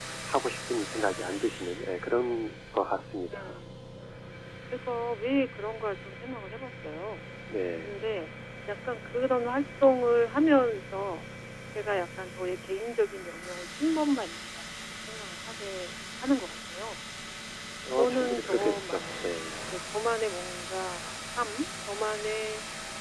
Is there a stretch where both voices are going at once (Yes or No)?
Yes